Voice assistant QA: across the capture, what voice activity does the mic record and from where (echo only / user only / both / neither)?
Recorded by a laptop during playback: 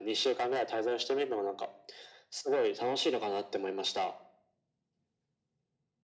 echo only